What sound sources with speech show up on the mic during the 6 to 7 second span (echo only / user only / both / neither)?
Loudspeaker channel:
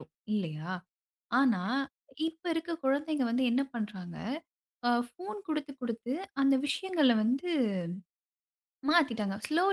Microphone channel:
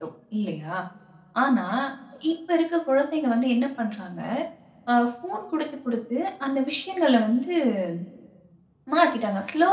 echo only